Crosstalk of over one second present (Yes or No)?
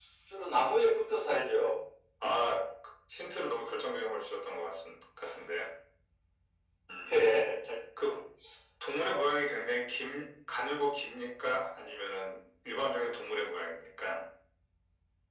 No